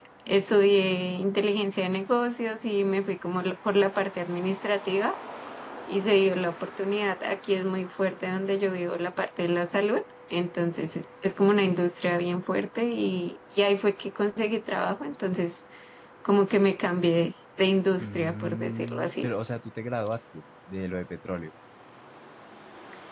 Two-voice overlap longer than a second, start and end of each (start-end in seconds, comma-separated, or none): 18.0-19.3